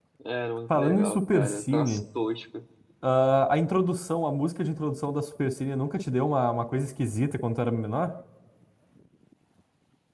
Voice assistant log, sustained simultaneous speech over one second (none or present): present